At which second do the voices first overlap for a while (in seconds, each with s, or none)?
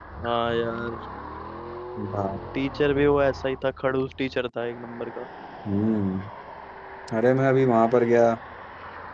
none